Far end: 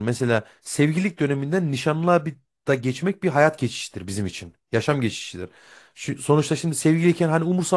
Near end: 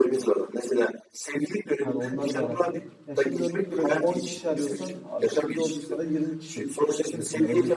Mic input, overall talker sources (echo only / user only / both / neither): both